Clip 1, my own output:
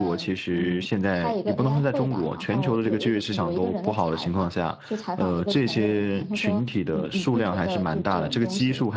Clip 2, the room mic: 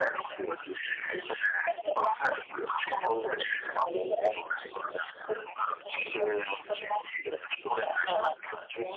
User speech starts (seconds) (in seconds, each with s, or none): none